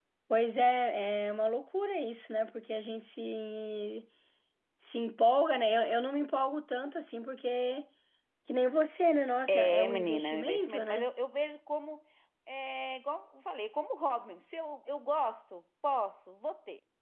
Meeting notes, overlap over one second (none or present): present